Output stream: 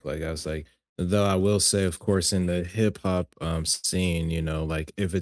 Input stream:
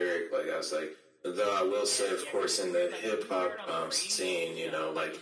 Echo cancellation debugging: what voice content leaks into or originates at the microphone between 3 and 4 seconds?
both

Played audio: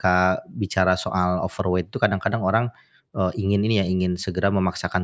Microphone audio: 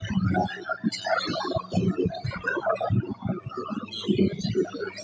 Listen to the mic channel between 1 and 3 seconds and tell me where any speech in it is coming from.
echo only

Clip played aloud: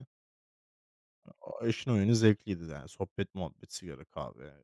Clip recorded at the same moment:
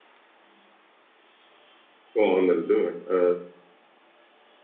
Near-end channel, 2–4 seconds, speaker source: user only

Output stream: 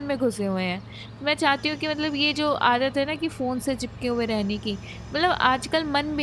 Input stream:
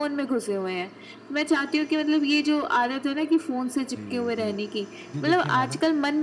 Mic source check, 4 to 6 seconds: both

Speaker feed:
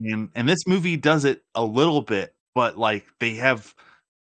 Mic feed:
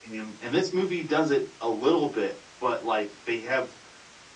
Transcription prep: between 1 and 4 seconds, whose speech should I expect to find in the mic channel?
echo only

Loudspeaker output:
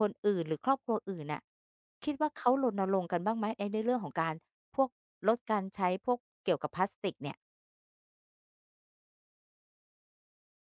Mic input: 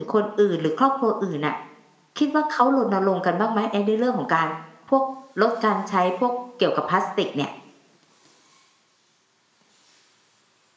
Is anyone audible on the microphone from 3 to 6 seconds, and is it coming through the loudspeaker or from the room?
echo only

